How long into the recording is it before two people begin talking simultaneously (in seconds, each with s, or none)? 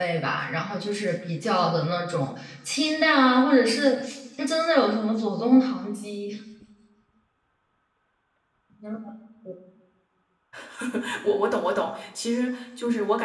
none